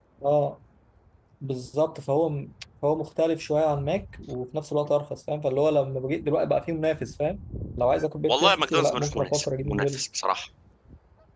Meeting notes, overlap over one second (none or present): present